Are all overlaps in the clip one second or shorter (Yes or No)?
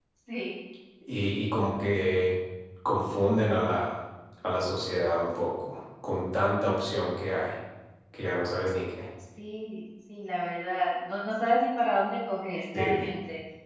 Yes